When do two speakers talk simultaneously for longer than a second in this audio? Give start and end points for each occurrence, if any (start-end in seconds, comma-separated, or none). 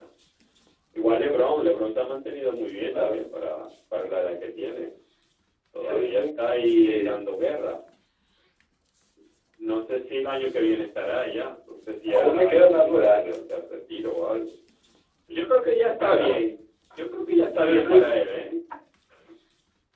12.1-13.4